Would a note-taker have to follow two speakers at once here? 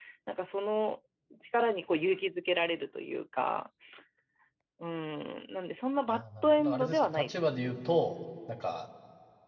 Yes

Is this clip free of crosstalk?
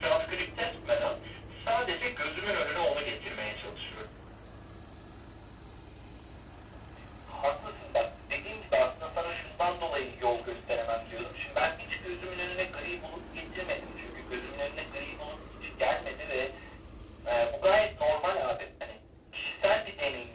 Yes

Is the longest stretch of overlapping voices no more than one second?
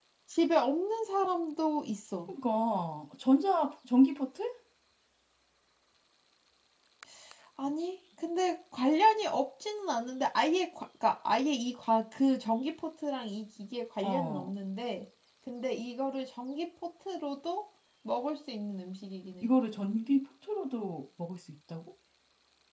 Yes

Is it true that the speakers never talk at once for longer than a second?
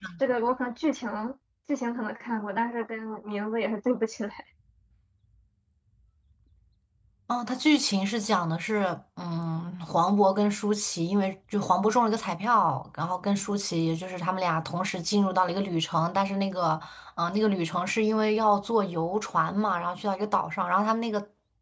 Yes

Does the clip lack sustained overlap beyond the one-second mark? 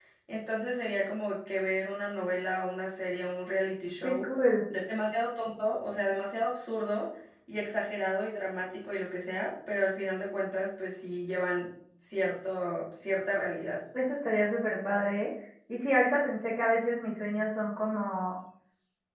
Yes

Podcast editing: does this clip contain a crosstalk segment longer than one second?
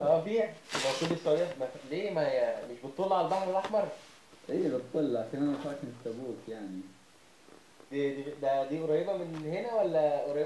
No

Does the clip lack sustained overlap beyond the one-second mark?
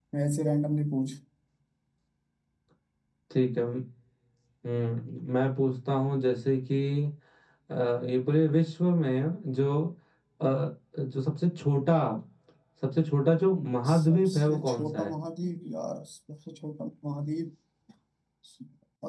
No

